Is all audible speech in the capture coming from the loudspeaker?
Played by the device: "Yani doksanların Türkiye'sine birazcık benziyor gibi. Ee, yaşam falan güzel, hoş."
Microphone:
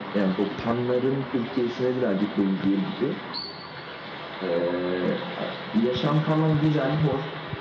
Yes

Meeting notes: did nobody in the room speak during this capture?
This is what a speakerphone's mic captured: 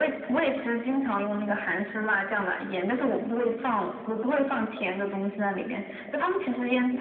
Yes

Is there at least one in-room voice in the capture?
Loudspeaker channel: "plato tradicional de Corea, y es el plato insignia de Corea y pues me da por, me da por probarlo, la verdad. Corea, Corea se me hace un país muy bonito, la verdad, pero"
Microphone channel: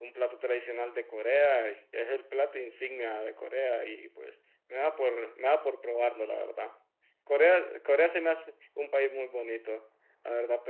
No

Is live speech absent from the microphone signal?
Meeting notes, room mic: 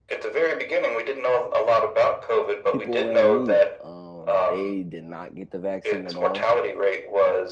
No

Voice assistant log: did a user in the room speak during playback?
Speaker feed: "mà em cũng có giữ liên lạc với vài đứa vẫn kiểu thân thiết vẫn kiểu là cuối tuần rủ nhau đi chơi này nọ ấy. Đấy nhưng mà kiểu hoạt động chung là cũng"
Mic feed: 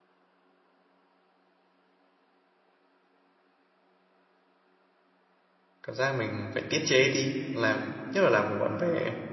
Yes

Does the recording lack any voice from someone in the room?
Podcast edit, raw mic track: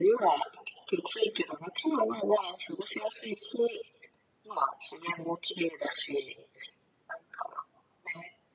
Yes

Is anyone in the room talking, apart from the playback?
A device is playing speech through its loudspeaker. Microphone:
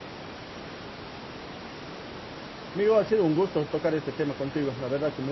Yes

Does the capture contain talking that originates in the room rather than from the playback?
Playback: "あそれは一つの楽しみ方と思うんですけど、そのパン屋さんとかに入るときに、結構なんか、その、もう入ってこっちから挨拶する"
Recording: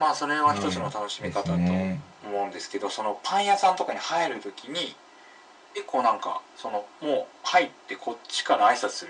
Yes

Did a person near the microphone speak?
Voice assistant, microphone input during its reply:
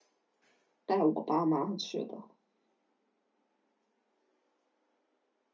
Yes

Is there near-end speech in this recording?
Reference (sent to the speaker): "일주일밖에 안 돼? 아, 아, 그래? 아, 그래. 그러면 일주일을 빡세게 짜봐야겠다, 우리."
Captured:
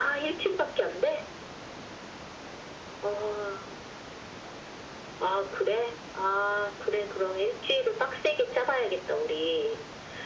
No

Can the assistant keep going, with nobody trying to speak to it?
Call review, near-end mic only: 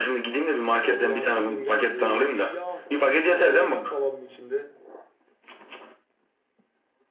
No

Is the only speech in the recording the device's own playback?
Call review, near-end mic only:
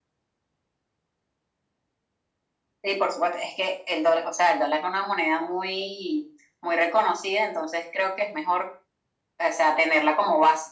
Yes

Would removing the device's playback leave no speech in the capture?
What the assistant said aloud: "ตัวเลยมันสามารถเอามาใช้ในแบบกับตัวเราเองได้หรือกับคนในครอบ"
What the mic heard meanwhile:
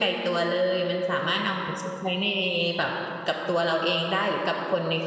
Yes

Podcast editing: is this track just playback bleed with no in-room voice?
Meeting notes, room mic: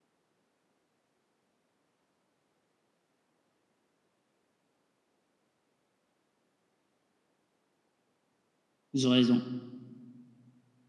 No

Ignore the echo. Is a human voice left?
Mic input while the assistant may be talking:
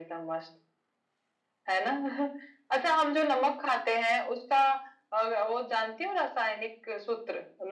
No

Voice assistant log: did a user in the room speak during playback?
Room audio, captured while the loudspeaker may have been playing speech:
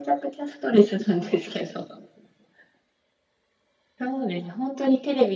No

